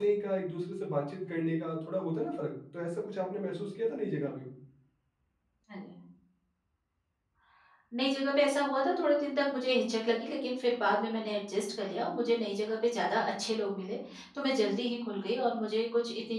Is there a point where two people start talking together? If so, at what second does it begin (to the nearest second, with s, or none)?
none